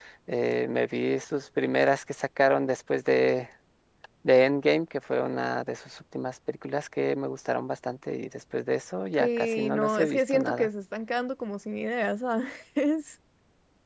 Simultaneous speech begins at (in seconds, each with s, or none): 9.2 s